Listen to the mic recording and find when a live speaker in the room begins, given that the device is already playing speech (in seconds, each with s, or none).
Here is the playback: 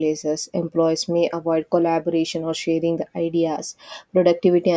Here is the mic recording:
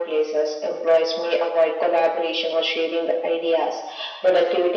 none